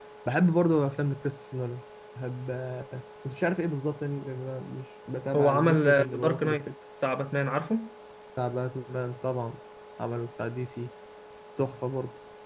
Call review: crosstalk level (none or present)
present